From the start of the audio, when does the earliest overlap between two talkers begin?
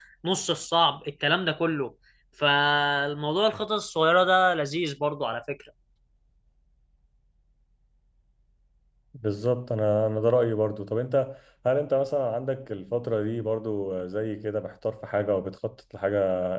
none

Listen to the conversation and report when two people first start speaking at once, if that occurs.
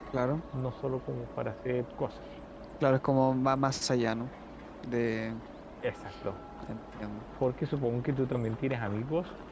none

